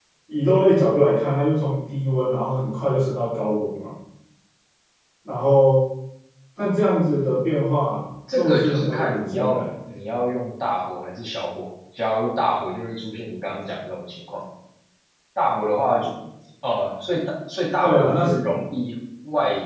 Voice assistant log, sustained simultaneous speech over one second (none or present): present